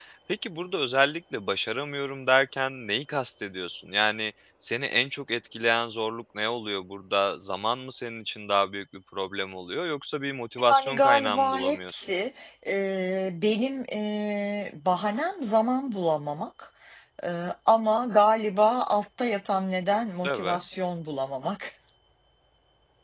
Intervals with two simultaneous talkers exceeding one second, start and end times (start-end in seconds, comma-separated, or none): 10.7-12.1